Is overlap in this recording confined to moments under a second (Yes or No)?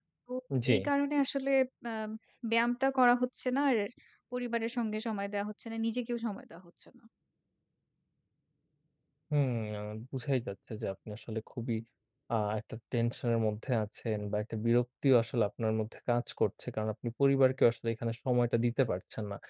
Yes